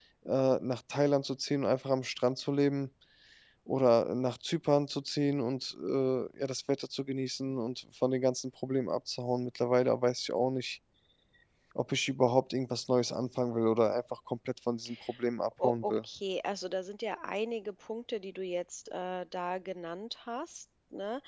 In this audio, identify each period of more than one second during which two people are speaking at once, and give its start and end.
none

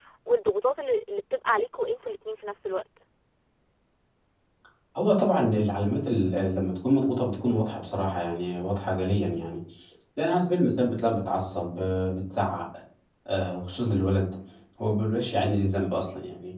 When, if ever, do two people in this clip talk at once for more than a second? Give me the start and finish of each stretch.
none

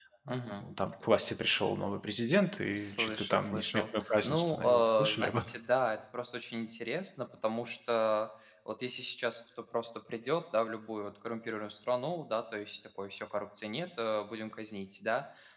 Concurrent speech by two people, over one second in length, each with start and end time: 2.7-5.5

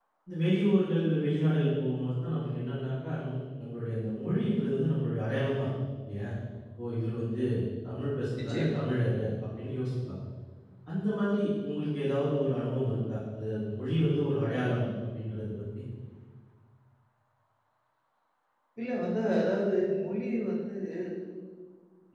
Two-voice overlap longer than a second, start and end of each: none

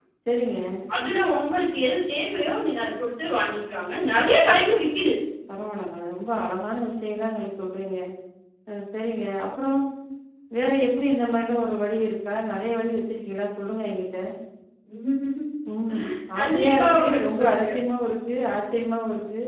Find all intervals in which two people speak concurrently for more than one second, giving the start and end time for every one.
16.4-17.7

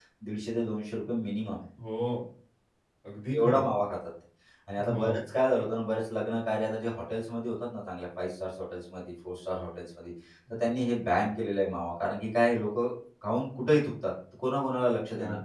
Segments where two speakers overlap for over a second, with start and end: none

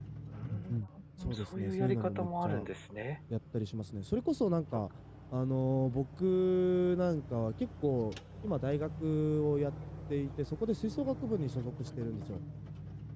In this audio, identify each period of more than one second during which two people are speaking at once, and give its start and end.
1.2-2.7

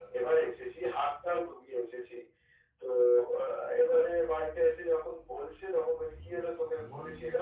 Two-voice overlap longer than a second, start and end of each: none

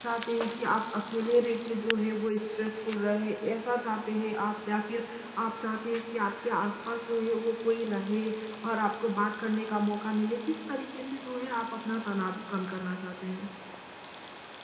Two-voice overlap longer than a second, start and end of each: none

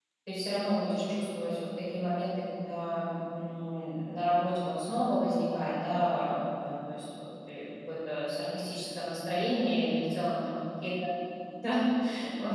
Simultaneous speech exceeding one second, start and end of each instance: none

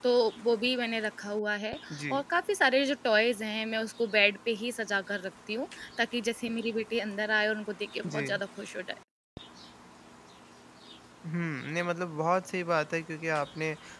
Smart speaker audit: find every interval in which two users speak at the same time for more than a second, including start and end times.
none

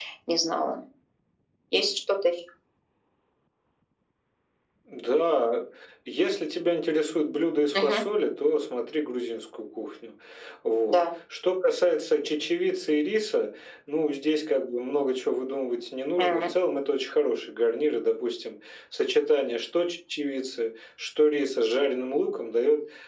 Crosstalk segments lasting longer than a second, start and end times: none

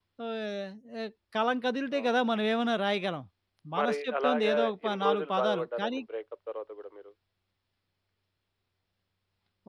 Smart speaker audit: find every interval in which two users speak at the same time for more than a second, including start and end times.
3.8-6.0

